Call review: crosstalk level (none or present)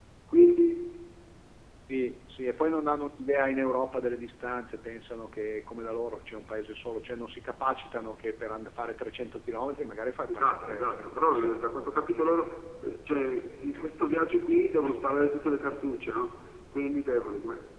present